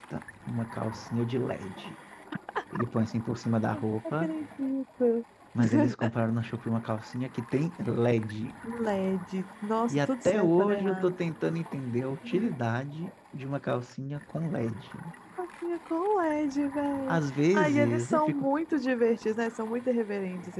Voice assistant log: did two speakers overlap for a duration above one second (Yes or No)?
Yes